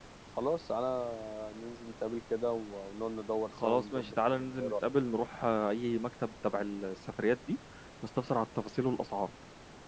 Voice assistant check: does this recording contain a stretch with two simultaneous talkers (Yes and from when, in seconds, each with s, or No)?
Yes, from 3.5 s